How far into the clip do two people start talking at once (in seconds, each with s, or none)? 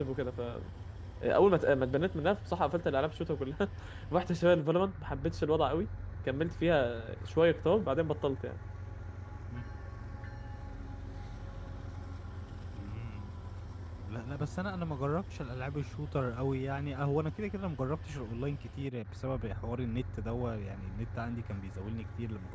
none